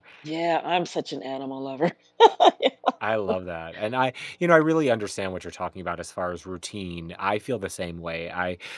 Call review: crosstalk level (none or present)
none